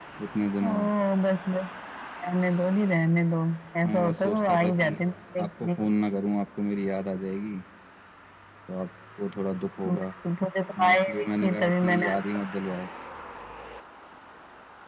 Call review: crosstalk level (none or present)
present